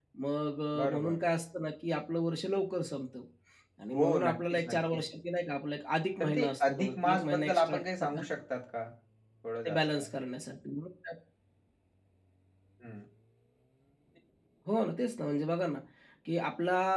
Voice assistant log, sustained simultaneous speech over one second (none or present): present